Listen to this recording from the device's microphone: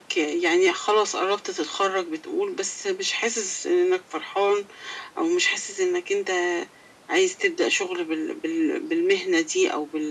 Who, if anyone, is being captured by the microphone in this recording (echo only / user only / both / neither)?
echo only